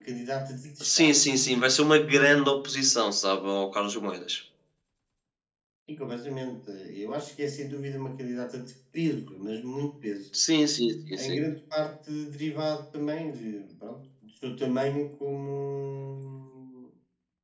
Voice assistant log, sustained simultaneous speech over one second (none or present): none